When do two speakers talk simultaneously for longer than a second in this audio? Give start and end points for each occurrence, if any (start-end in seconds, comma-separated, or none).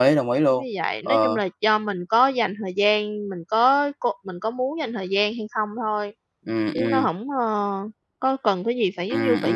none